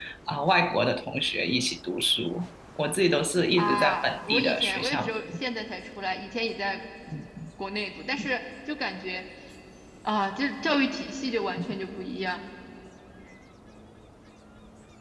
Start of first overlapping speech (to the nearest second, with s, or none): 4 s